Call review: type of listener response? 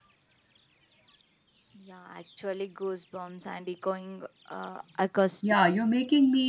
taking over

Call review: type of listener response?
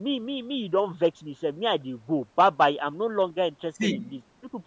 listening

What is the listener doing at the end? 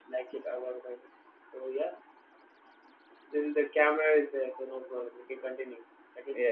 taking over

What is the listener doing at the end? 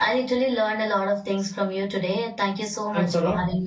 taking over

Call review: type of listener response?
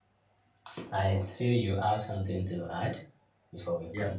taking over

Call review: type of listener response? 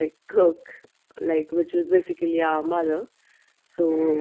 listening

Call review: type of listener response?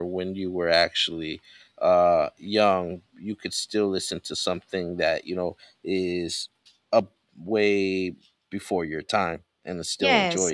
taking over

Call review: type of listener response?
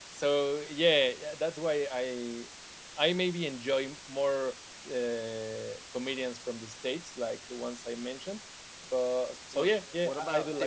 taking over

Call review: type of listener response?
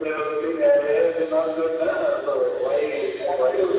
listening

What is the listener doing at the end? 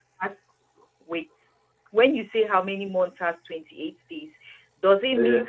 listening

